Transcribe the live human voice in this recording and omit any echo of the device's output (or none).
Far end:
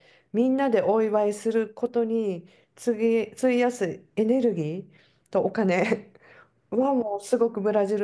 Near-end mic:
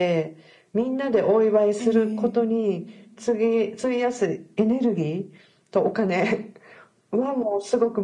ええ